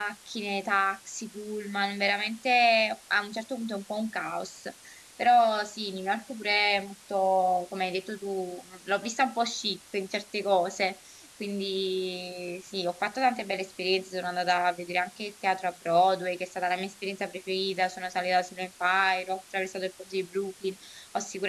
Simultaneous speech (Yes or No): No